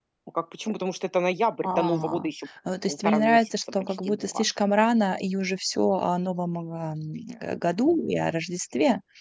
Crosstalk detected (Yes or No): Yes